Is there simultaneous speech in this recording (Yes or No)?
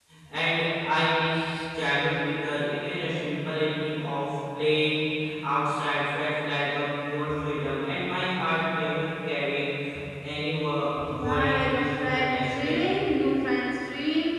Yes